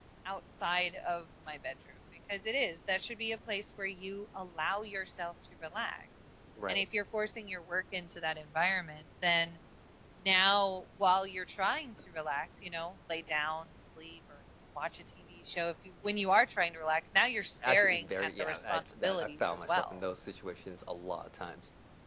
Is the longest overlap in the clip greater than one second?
Yes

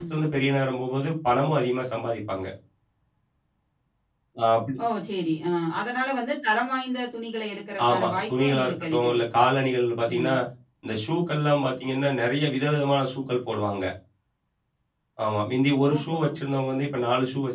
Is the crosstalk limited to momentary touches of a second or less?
No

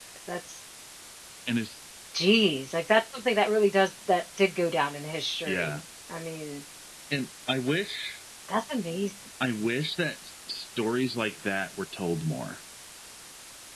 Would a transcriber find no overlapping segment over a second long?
Yes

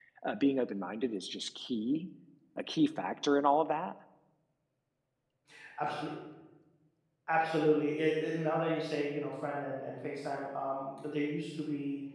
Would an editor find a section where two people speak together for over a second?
No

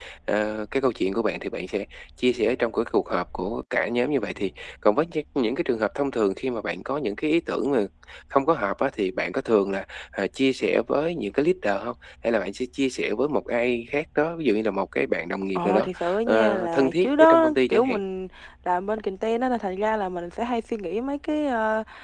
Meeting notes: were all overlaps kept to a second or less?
No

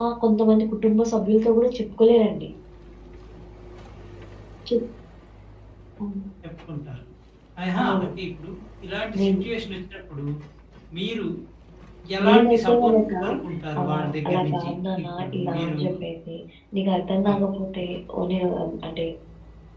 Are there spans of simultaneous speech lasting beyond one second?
Yes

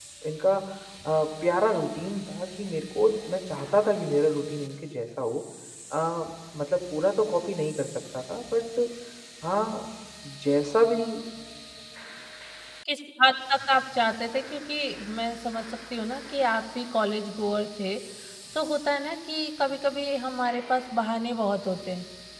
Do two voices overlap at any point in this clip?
No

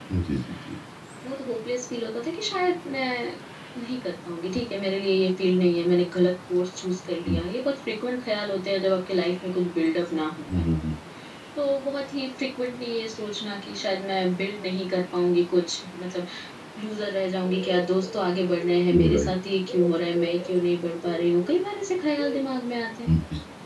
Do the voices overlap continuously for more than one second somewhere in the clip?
No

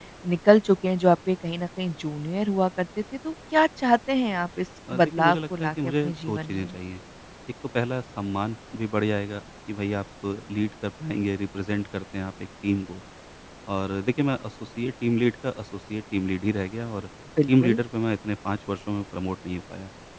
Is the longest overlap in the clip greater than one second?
Yes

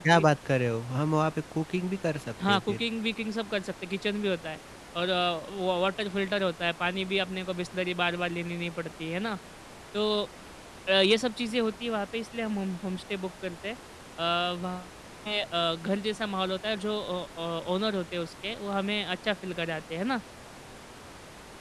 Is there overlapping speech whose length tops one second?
No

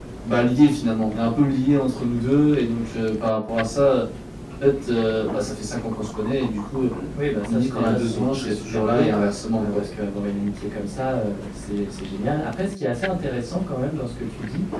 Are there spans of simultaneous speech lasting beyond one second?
Yes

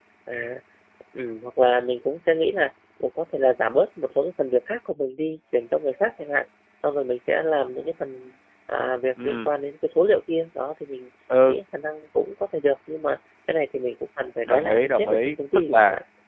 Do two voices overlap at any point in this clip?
Yes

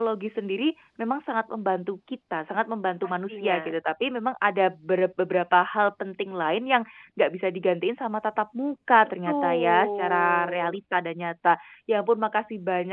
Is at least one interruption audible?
Yes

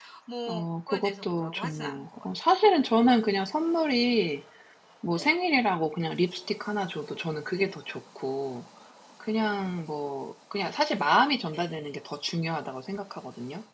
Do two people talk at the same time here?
Yes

